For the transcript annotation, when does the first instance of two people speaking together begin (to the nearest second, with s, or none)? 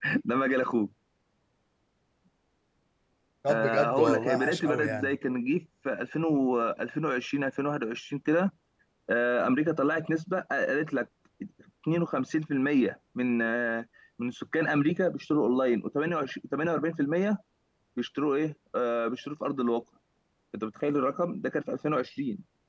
3 s